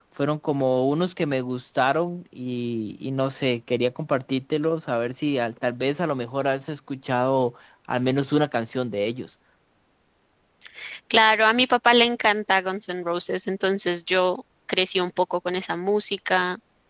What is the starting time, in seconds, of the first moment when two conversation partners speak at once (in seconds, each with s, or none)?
none